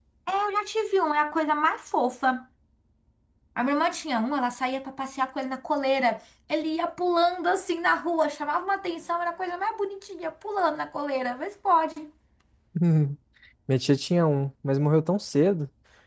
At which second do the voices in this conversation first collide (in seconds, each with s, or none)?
none